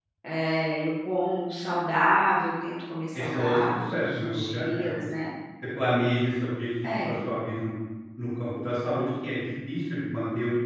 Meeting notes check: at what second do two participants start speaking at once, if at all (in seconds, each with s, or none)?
3.1 s